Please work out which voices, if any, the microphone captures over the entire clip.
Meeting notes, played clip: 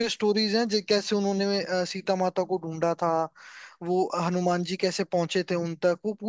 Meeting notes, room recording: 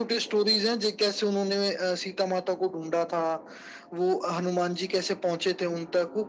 echo only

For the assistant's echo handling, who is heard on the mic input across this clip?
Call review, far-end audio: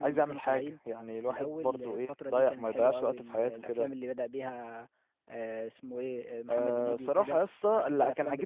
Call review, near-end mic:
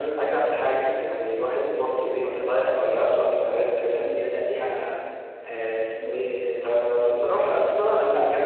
echo only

